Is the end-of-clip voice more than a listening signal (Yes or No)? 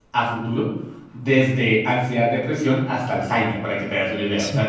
Yes